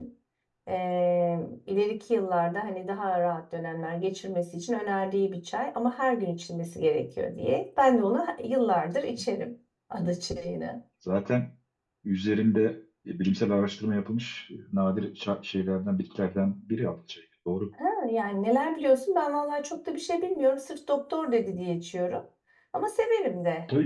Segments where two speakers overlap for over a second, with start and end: none

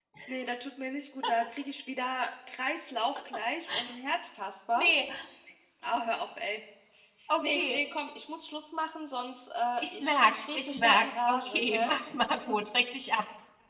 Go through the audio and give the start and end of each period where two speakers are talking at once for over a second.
9.8-11.9

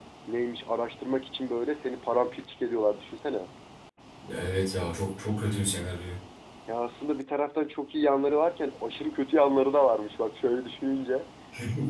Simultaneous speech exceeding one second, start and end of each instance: none

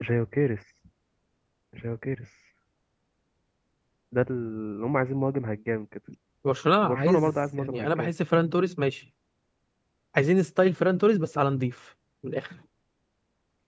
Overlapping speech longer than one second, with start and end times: 6.8-8.1

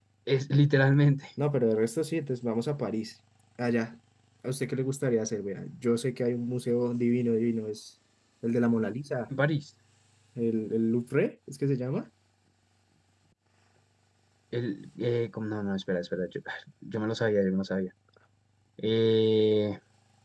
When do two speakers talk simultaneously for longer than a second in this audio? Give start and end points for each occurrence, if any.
none

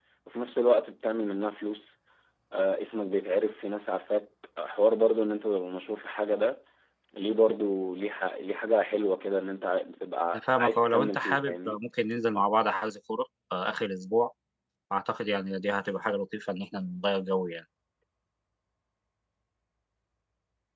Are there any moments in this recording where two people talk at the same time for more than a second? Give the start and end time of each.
10.3-11.8

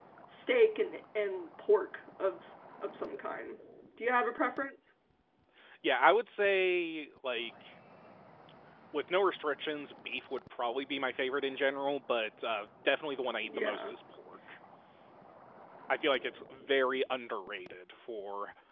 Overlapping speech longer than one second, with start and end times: none

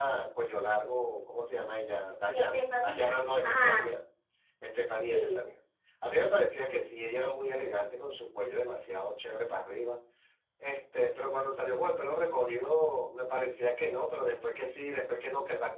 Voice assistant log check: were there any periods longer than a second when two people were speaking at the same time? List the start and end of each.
2.3-3.9

